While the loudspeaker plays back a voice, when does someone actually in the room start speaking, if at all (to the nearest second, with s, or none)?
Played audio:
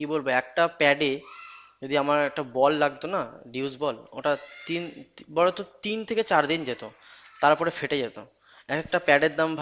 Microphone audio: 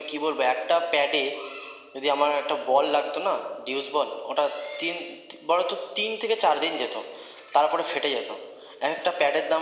none